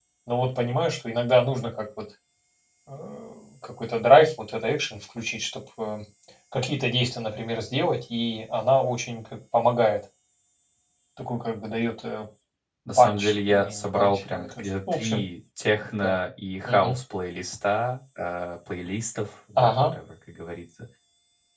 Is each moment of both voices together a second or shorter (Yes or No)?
No